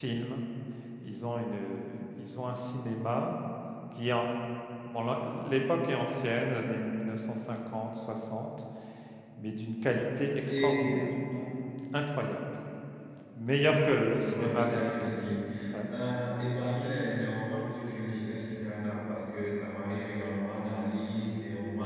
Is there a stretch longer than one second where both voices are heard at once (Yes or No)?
Yes